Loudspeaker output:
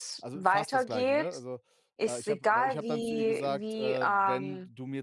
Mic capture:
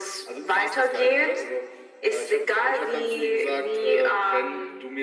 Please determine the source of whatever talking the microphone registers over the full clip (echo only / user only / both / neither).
echo only